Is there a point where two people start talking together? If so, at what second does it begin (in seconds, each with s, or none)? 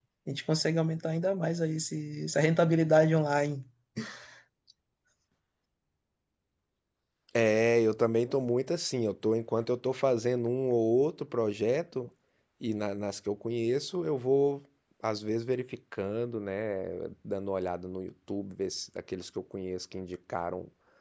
none